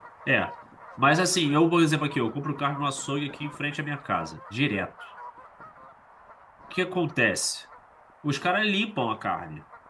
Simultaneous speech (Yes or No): No